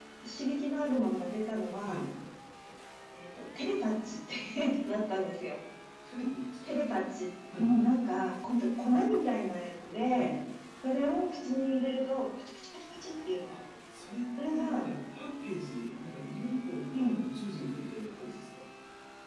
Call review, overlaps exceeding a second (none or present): none